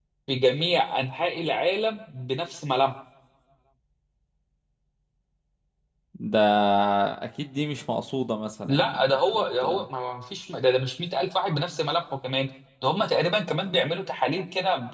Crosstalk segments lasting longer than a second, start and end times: 8.6-9.8

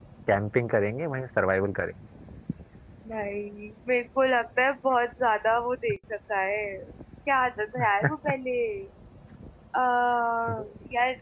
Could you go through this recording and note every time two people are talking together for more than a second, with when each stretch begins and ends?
none

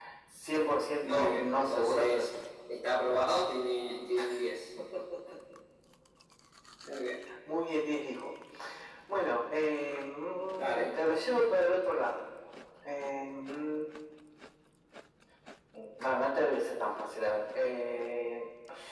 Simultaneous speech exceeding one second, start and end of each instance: 1.0-2.3

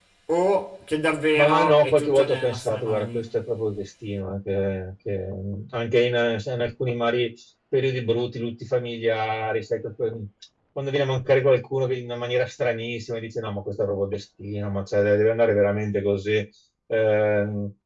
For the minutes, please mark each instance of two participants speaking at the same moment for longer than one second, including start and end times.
1.4-3.4

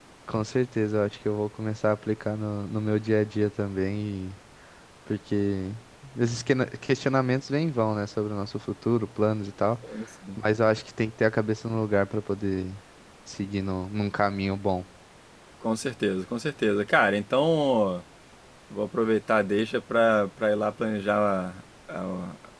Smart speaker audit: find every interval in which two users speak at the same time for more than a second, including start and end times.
none

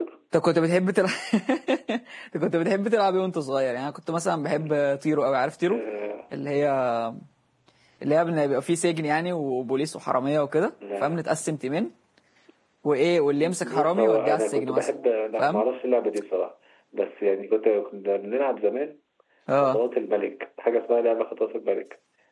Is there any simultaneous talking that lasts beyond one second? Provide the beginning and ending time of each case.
13.4-14.9

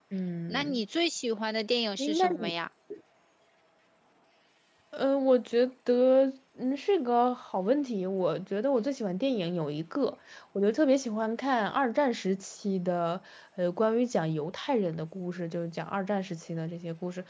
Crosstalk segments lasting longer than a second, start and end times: none

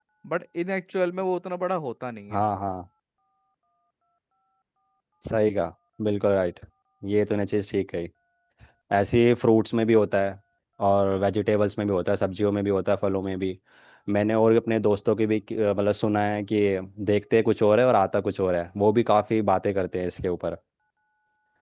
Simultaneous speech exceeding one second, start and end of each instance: none

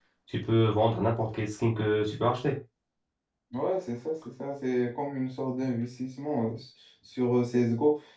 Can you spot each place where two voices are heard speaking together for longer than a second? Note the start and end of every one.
none

